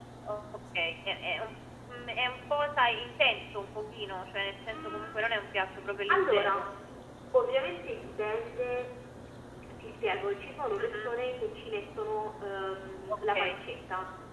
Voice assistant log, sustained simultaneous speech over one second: none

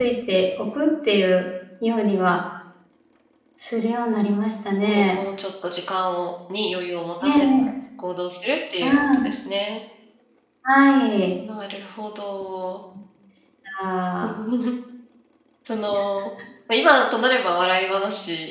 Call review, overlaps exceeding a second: none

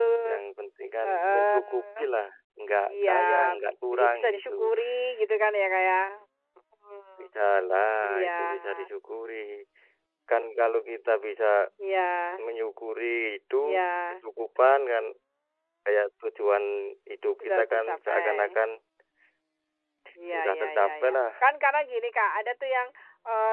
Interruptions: present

